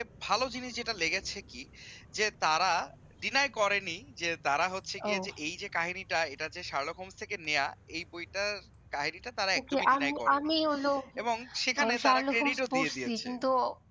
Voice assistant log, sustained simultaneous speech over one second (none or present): present